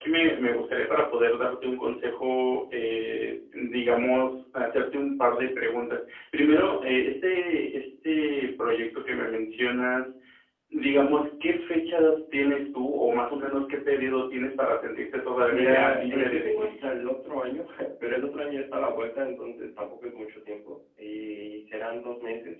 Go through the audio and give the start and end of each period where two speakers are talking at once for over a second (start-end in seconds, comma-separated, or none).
15.5-16.7